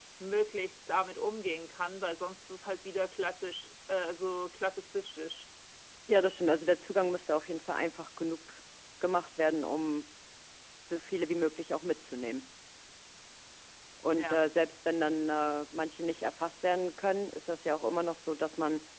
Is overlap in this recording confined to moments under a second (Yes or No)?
Yes